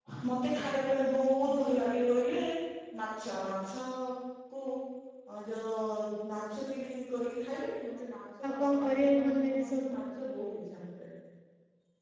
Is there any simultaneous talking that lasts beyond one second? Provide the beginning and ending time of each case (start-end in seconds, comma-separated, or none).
8.5-9.9